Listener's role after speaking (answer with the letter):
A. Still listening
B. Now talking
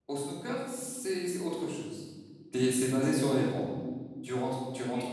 A